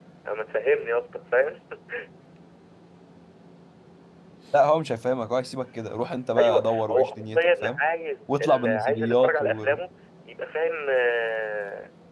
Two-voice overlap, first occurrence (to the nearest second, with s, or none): 6 s